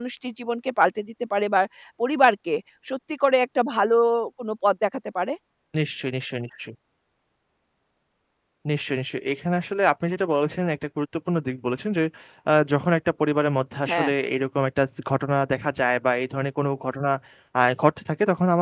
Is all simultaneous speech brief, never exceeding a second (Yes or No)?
Yes